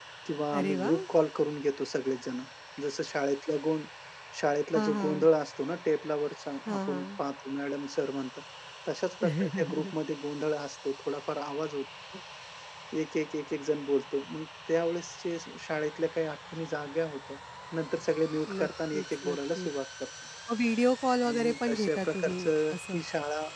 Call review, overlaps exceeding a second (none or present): present